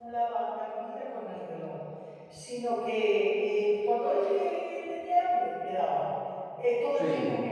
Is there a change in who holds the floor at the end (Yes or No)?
No